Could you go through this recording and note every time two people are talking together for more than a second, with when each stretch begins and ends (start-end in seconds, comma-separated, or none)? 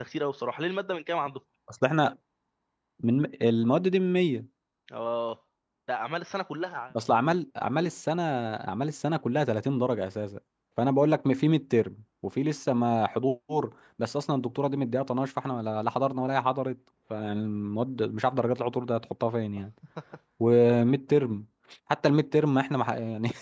none